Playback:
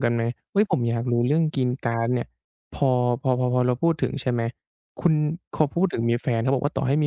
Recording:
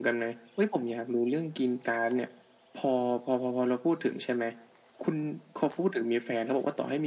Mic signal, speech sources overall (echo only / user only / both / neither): echo only